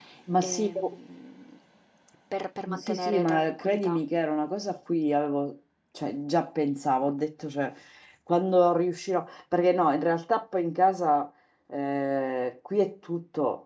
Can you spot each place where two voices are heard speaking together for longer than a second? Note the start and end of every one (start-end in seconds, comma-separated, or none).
2.8-4.0